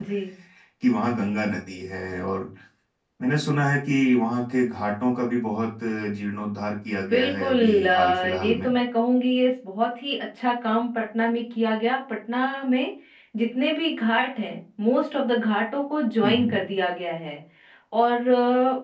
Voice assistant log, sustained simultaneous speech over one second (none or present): present